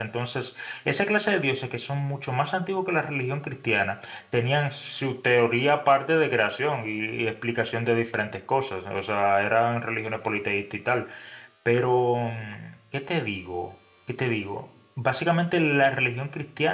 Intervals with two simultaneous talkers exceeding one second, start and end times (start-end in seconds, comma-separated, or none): none